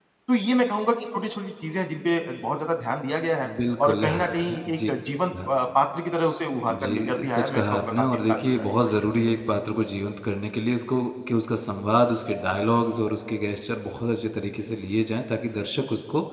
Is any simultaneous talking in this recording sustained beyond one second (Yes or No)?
Yes